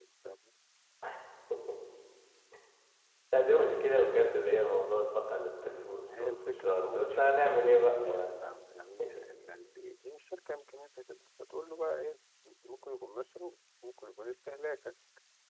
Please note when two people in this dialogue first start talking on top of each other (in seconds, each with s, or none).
5.9 s